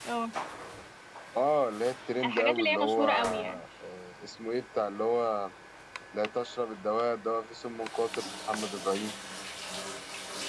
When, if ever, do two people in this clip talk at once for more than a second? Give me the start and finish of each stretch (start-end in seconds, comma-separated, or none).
2.2-3.6